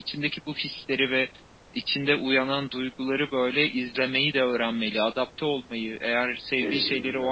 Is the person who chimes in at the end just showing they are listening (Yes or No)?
Yes